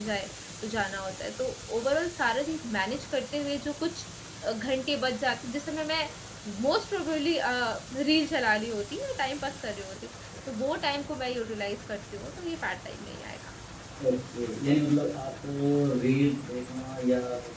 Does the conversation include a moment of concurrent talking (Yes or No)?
No